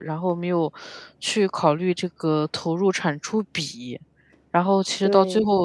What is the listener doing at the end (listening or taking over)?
listening